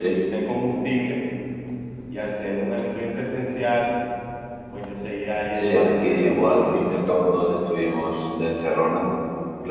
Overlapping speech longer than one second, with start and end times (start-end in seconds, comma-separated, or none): 5.5-6.9